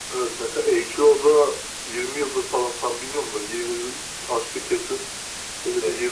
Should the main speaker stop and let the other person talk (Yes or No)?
No